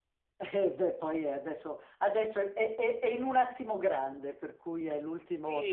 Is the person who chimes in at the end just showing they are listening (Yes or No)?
No